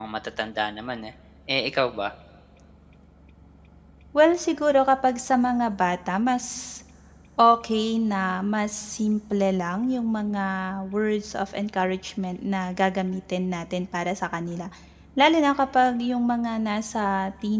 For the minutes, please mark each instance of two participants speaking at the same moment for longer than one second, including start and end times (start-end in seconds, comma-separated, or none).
none